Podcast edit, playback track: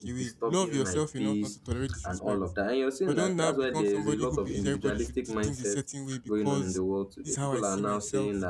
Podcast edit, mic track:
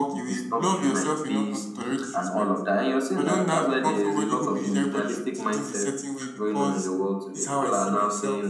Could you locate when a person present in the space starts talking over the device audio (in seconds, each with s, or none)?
none